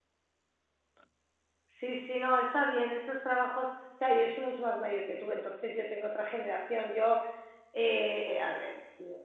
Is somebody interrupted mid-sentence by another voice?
No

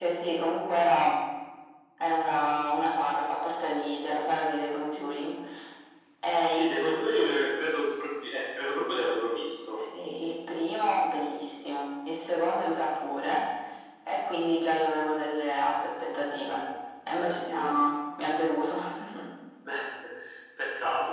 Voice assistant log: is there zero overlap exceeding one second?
Yes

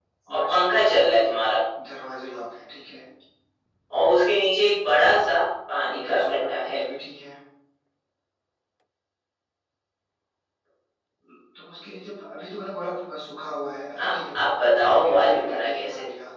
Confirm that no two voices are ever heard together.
No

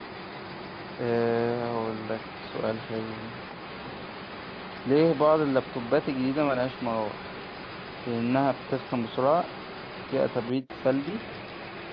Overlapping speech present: No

